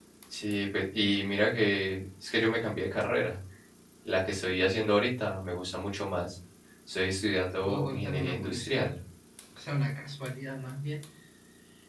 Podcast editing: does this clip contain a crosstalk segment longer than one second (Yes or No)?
Yes